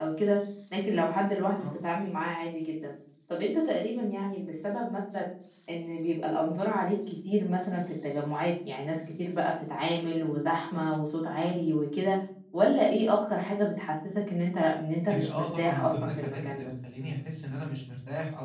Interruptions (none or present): present